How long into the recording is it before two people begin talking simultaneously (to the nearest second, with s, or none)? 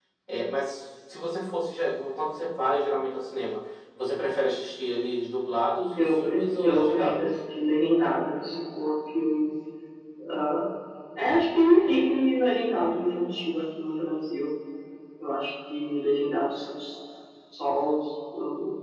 6 s